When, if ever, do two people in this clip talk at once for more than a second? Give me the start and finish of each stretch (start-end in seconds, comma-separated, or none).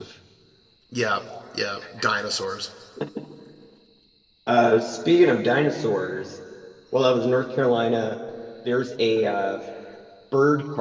none